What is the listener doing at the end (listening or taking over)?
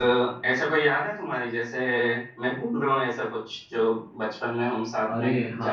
taking over